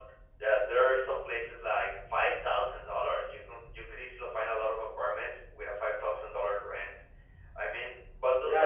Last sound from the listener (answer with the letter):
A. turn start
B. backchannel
A